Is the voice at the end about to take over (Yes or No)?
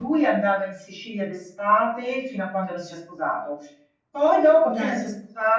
No